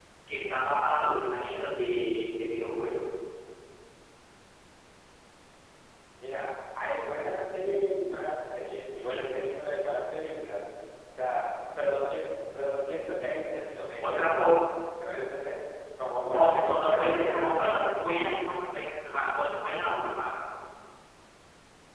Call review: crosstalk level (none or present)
present